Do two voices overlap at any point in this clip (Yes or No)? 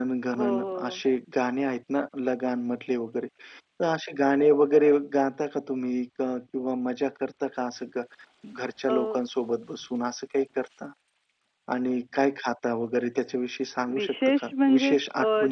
Yes